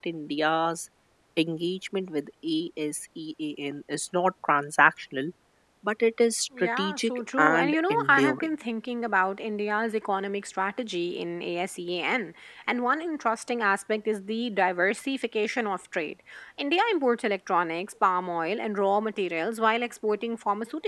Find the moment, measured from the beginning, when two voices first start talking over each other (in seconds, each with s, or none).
6.6 s